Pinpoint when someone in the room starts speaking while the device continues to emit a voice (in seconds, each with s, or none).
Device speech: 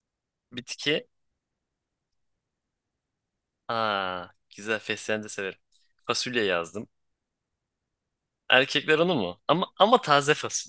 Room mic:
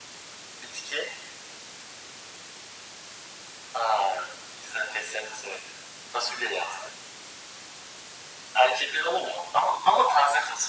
none